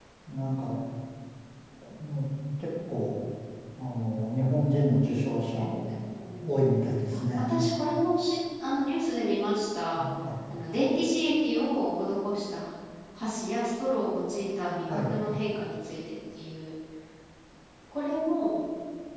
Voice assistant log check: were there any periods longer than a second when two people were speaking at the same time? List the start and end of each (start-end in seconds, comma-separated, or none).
none